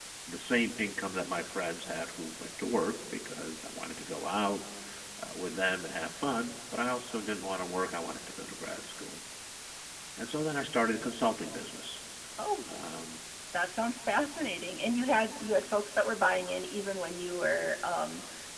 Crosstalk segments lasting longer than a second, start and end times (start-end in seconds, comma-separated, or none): none